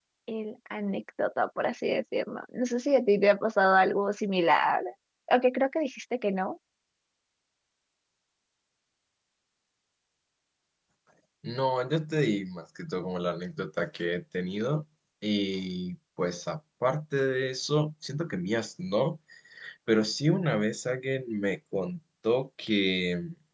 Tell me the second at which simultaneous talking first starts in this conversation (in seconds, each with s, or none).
none